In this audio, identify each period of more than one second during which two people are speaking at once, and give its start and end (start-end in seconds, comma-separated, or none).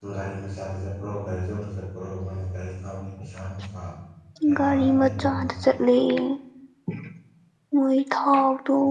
4.6-5.8